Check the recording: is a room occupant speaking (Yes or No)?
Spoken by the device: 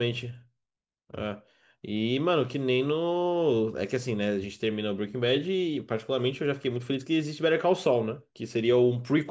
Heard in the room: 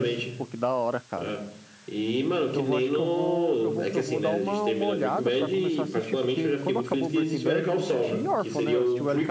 Yes